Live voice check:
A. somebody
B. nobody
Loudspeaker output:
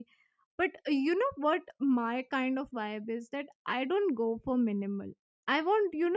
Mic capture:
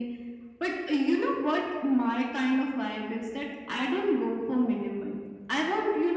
B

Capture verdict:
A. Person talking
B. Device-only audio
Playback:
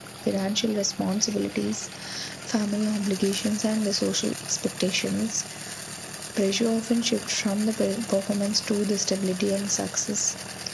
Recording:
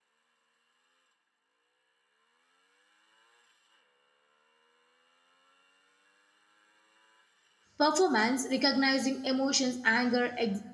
A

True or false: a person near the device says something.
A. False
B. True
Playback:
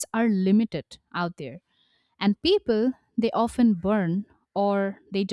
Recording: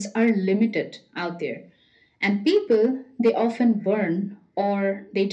A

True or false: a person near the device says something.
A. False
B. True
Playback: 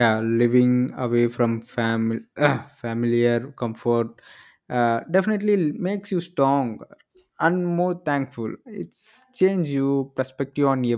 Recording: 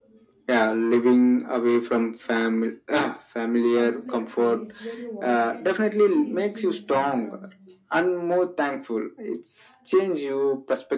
B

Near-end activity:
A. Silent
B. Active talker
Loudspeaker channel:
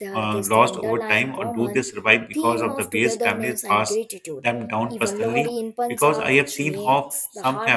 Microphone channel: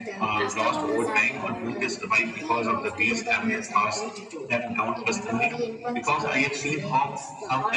B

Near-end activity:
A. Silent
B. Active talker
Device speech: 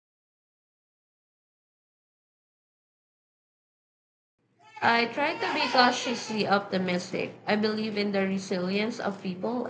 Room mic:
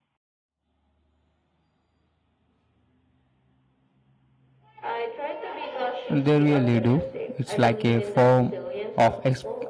B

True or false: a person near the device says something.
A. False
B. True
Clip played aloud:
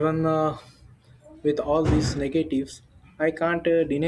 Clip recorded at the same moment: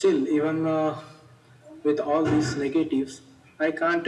A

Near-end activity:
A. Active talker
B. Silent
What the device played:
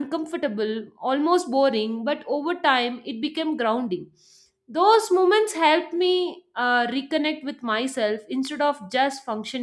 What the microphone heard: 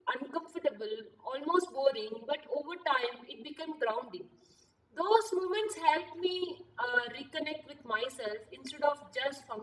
B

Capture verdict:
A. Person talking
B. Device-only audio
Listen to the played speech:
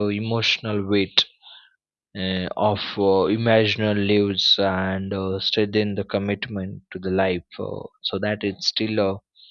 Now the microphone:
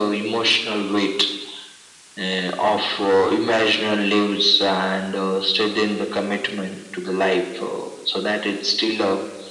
B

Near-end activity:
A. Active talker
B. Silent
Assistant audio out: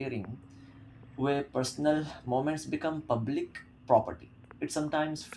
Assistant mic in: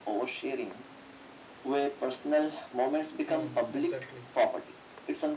A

